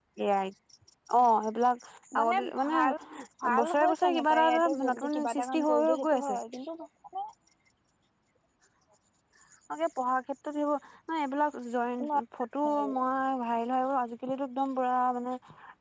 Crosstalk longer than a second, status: present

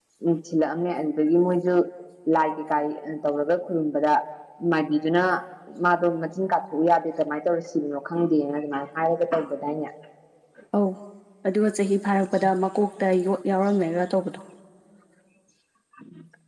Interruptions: none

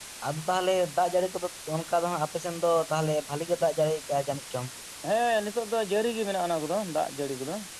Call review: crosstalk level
none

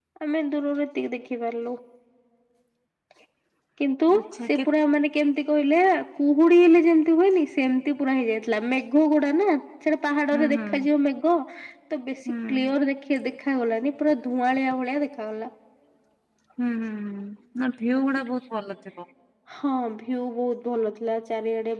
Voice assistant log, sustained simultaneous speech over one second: none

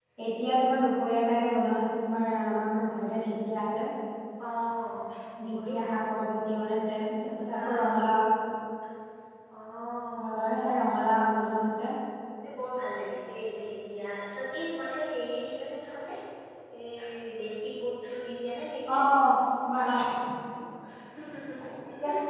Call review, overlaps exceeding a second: none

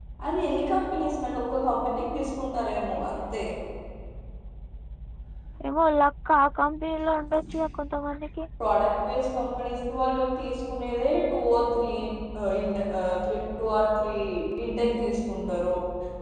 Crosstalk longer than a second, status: none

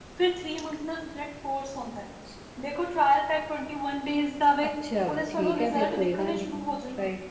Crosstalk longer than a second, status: present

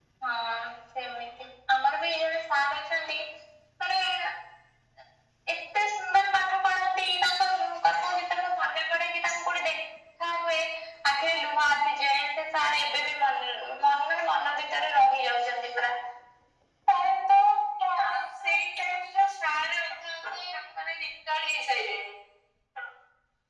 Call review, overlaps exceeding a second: none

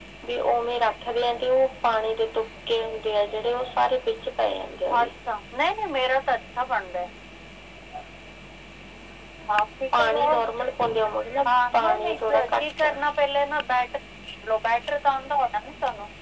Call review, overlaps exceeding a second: present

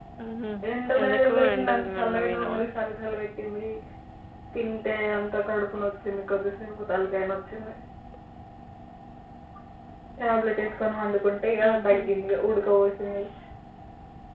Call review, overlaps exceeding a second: present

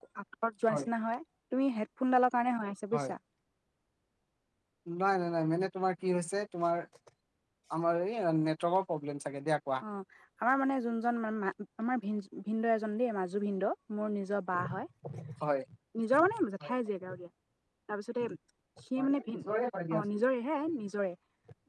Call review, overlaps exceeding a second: none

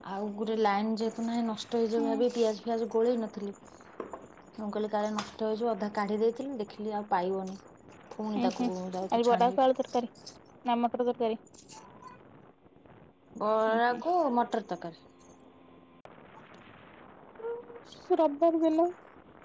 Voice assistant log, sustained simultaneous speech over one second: none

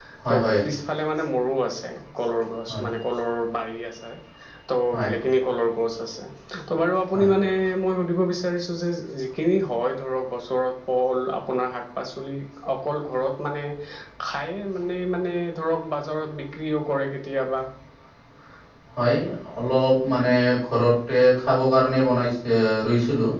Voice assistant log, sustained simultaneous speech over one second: none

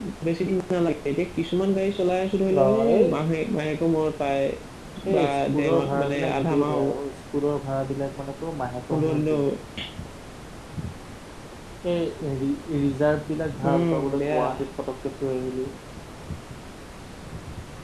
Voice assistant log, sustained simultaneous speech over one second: present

